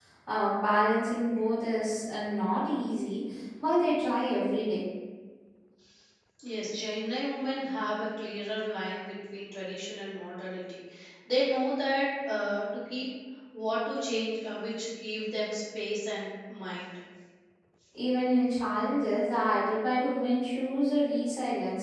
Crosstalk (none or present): none